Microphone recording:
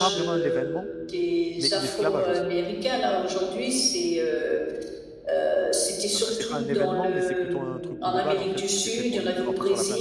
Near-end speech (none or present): present